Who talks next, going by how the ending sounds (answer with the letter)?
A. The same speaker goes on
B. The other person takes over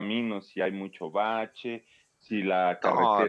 A